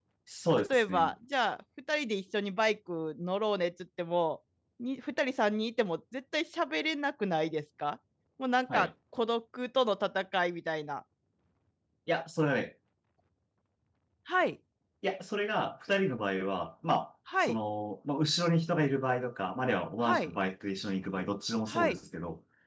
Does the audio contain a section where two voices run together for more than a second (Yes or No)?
No